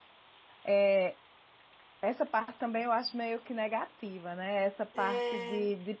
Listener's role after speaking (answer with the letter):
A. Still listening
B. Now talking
A